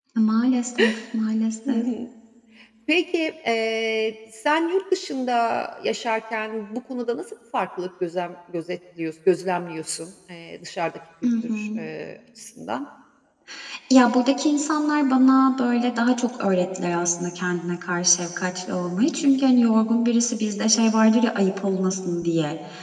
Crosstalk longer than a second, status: none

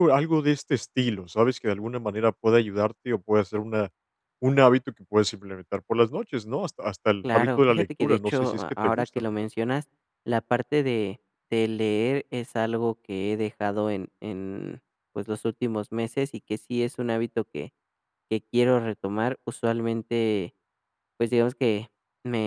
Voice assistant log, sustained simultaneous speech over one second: present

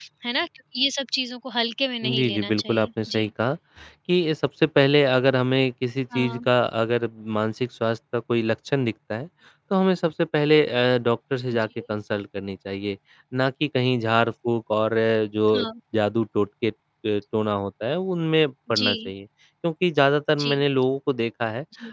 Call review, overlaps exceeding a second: present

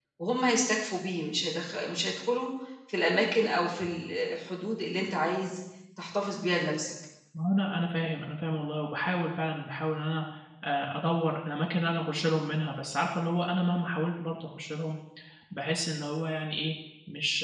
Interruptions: none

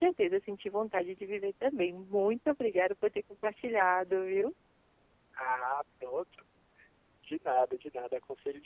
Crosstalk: none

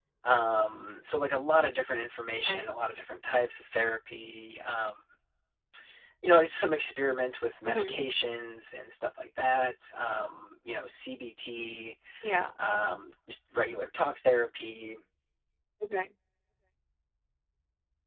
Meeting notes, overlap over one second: none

